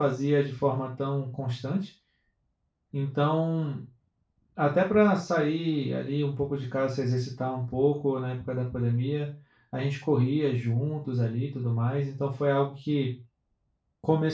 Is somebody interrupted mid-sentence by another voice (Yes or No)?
No